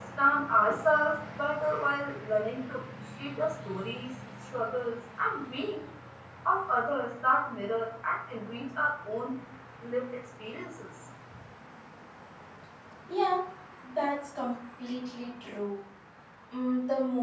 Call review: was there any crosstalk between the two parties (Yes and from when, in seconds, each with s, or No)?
No